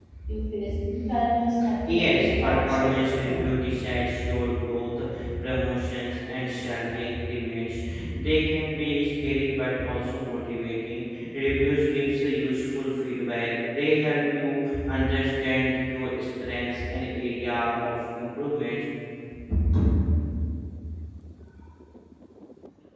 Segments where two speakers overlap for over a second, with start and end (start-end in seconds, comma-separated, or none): 1.9-3.5